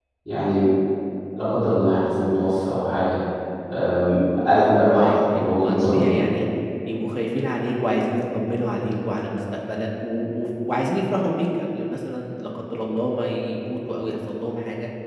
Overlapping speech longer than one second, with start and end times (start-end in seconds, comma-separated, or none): 5.0-6.3